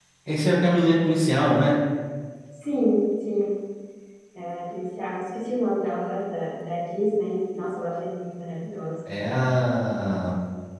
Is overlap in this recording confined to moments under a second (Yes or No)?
Yes